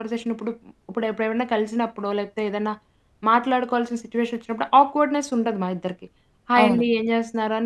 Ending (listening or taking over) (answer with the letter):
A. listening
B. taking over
A